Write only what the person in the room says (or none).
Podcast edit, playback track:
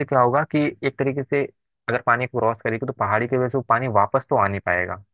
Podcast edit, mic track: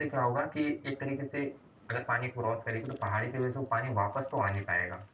none